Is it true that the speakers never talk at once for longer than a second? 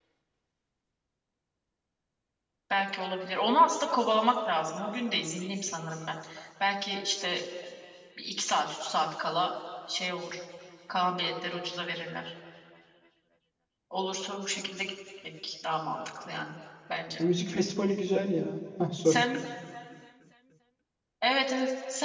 Yes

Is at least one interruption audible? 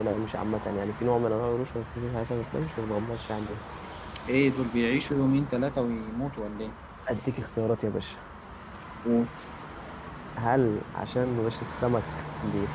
No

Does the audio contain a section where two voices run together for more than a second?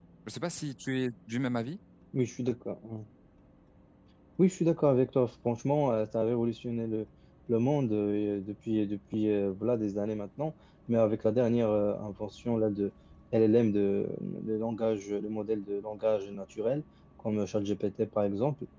No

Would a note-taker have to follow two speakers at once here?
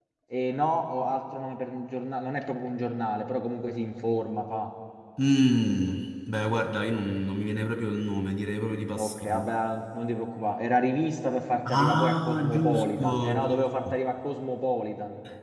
Yes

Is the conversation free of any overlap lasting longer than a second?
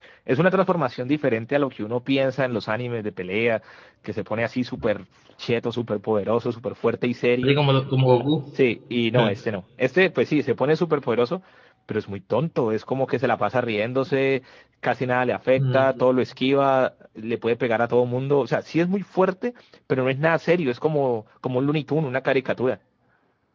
Yes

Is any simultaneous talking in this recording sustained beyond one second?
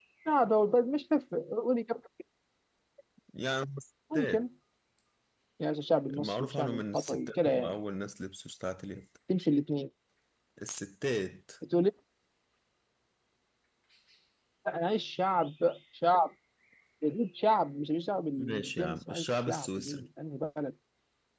Yes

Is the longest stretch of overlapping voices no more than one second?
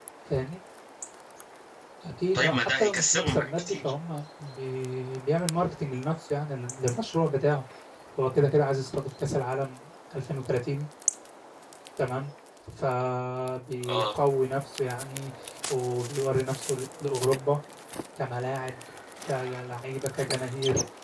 No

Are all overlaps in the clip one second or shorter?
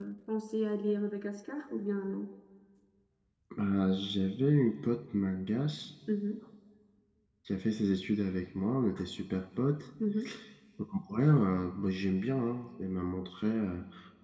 Yes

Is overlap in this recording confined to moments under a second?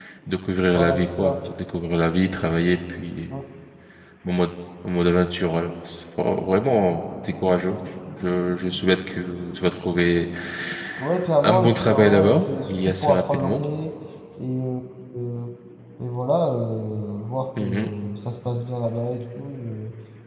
No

